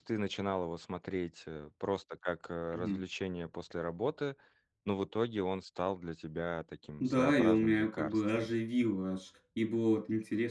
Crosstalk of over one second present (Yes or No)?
Yes